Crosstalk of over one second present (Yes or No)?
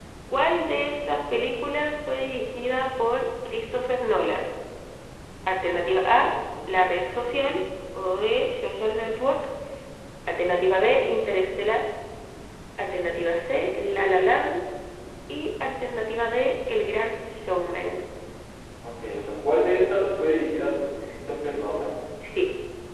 No